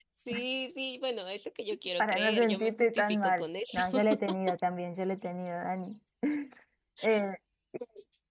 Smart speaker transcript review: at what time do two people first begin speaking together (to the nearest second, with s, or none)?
2 s